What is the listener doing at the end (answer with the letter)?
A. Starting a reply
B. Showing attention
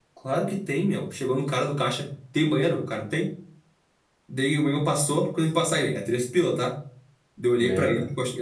B